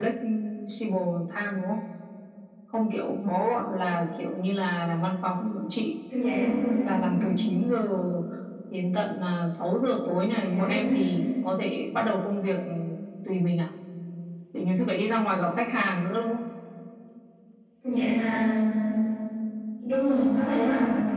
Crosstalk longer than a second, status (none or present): none